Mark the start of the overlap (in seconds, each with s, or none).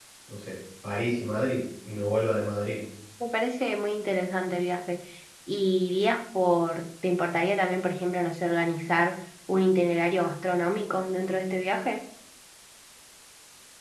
none